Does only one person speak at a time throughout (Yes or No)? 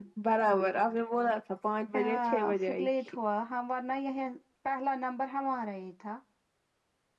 No